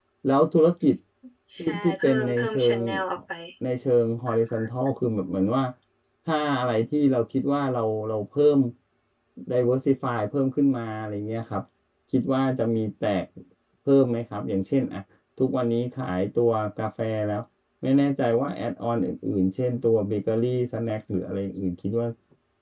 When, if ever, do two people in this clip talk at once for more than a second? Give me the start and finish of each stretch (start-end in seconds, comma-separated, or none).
1.6-2.8